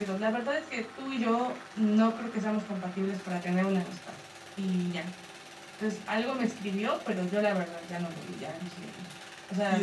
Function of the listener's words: taking over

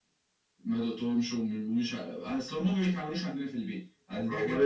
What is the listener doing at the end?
taking over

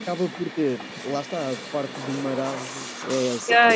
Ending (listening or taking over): taking over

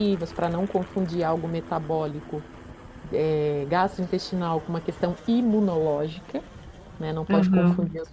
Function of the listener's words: listening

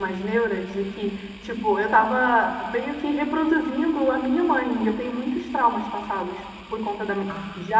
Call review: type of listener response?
listening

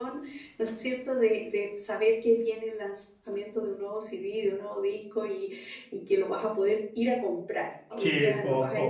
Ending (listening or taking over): taking over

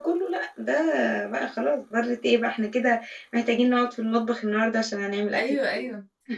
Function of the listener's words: taking over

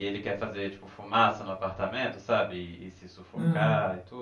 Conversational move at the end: listening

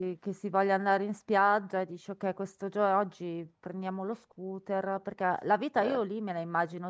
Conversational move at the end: listening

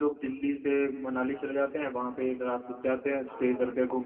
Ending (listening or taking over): listening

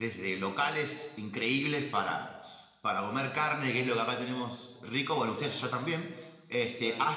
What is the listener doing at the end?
listening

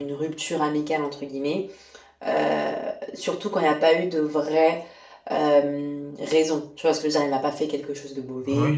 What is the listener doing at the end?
taking over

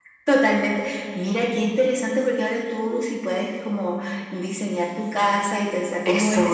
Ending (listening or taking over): taking over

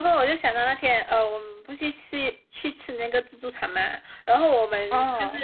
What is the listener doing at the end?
listening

